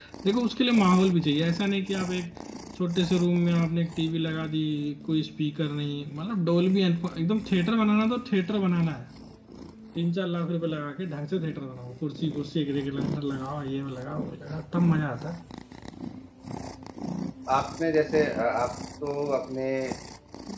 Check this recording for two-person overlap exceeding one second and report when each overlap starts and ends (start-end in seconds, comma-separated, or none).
none